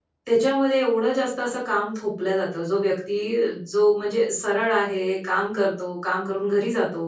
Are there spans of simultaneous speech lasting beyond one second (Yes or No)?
No